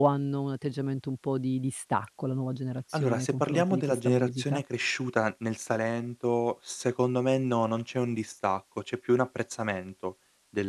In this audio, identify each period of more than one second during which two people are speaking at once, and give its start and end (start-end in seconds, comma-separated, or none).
2.9-4.6